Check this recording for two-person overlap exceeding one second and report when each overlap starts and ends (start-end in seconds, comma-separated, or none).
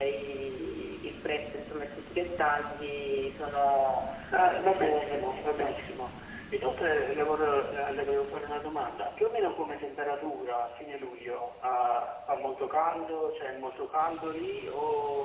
4.4-5.8